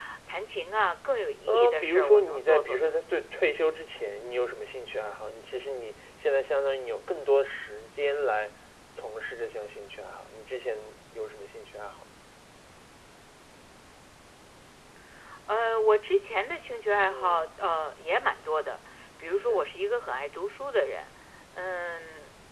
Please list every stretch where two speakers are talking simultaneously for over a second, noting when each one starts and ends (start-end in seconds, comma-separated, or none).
1.5-3.0